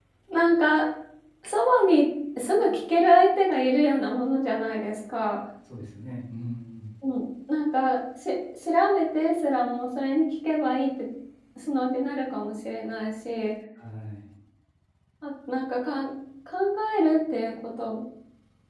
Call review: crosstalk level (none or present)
none